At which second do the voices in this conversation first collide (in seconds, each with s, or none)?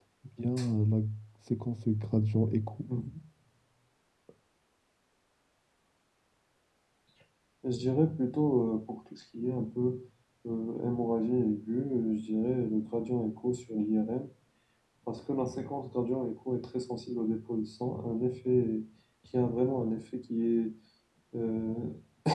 none